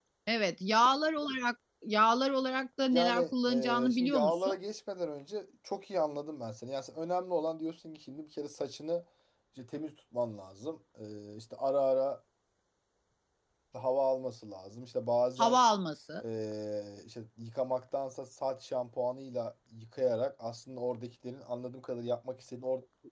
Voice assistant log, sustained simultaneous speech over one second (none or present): present